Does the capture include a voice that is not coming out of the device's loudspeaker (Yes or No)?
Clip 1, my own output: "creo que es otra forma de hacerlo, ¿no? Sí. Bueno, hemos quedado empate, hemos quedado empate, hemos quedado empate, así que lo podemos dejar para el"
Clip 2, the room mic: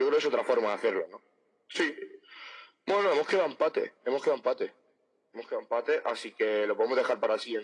No